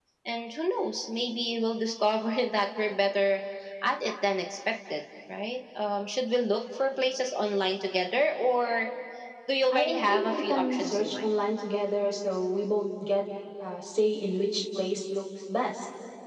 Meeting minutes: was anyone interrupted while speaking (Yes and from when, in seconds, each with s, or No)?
Yes, from 9.7 s